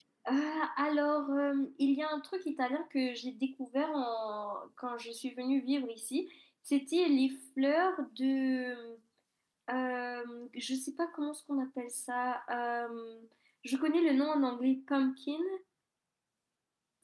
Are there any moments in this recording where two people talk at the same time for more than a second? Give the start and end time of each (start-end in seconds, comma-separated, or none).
none